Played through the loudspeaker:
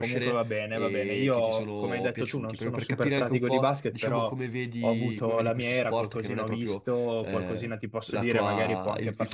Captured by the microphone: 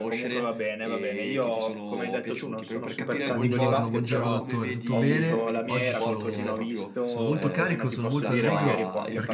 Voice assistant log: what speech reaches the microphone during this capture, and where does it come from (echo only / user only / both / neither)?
both